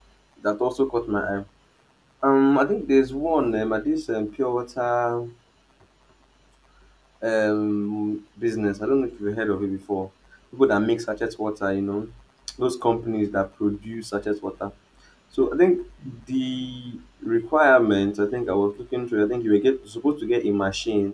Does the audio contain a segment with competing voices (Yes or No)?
No